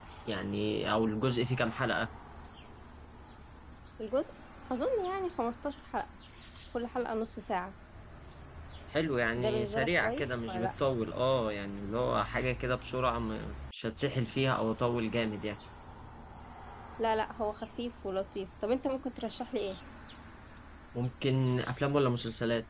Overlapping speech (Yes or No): Yes